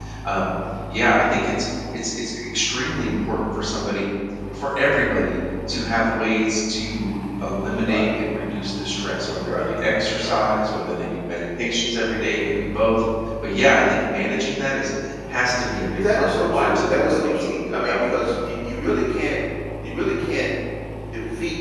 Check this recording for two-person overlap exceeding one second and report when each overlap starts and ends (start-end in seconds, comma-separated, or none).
16.0-18.1